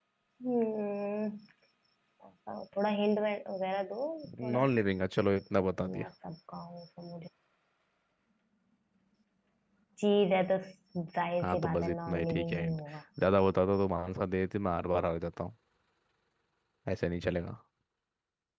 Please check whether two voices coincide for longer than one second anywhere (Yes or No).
Yes